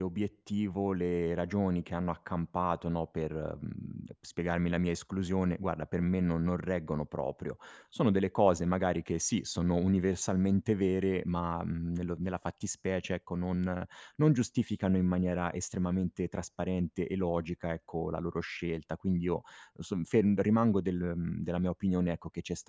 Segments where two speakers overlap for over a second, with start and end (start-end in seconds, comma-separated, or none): none